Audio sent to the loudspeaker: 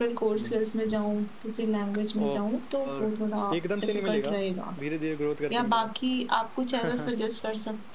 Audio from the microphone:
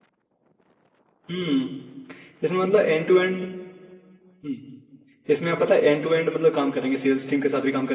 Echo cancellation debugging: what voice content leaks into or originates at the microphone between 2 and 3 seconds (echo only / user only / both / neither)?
user only